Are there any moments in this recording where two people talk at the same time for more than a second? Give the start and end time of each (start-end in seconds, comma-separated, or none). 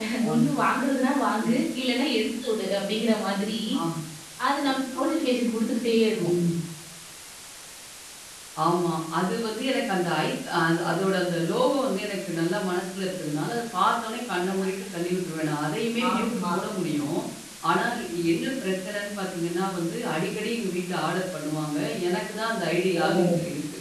none